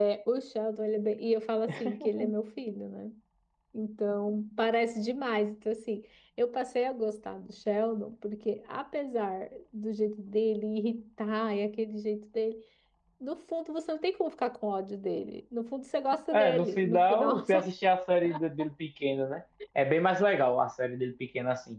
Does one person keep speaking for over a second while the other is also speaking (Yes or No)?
Yes